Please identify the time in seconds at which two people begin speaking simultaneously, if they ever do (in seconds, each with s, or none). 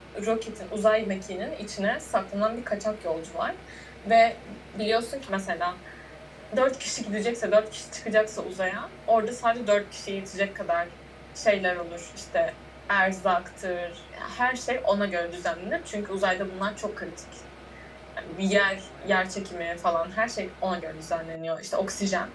none